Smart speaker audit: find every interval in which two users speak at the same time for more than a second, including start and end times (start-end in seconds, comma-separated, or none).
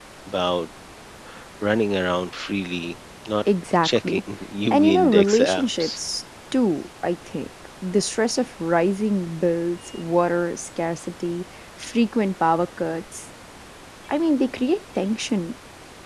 4.7-6.0